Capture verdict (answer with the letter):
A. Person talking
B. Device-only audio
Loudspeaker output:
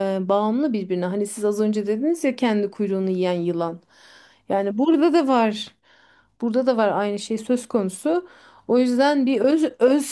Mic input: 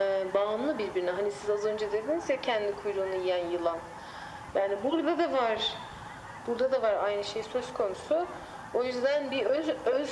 B